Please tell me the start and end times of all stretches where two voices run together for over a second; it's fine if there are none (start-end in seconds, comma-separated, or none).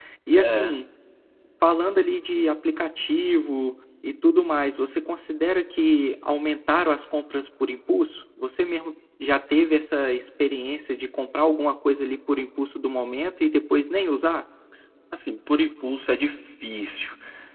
none